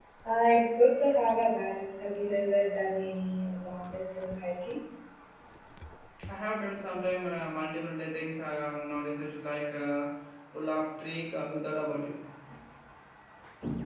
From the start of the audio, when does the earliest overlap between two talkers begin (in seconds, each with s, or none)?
none